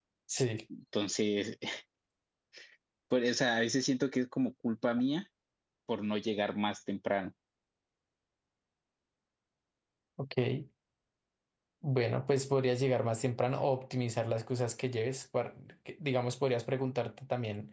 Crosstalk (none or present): none